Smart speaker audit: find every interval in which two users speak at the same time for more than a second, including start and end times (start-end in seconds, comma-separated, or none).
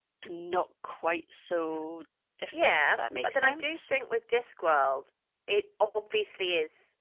2.5-3.9